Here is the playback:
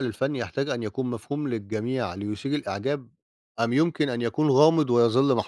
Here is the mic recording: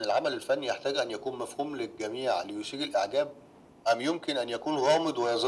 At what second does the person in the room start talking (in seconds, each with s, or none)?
none